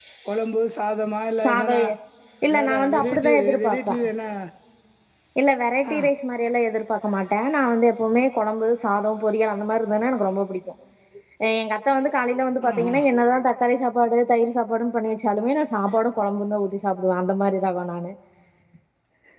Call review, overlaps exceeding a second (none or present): present